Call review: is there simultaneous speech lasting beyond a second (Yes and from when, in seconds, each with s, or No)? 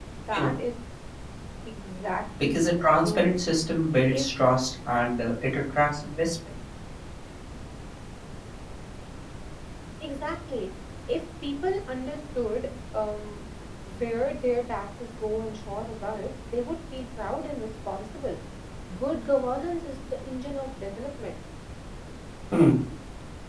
No